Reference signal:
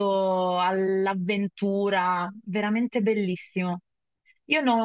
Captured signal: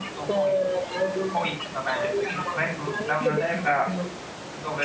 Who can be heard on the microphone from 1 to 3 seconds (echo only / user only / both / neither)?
both